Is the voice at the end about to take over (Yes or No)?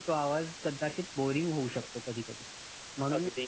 No